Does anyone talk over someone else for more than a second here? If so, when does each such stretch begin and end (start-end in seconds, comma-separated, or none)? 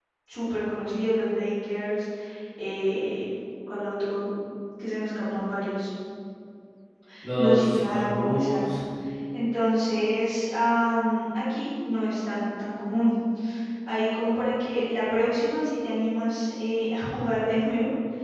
7.4-8.6